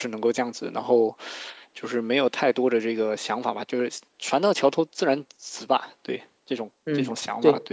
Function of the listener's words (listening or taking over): taking over